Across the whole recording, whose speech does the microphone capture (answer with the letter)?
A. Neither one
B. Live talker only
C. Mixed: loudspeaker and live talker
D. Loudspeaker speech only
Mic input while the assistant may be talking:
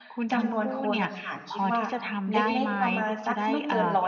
C